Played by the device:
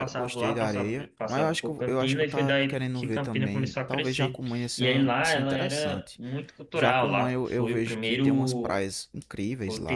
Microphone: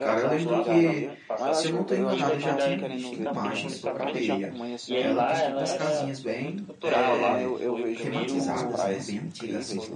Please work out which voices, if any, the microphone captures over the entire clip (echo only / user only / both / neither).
both